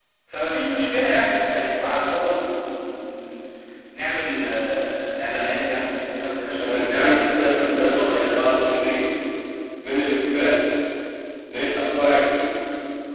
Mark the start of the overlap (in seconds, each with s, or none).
6.6 s